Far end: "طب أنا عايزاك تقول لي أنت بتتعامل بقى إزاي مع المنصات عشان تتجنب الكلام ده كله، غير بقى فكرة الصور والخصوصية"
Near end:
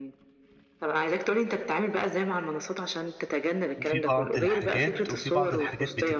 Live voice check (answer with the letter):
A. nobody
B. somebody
B